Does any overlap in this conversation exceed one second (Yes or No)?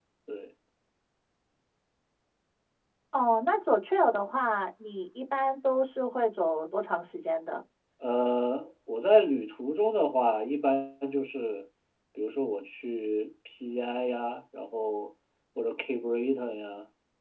No